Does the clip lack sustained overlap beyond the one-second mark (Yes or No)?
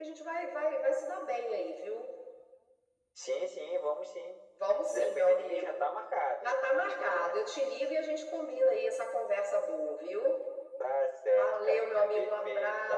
No